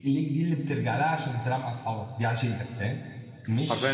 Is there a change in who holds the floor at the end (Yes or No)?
Yes